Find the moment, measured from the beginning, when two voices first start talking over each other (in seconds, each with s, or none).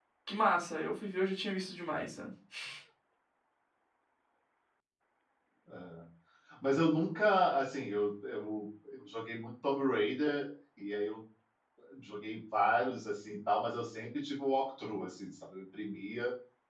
none